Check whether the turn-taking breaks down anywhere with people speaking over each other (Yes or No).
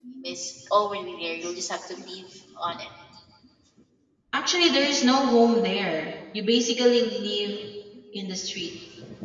No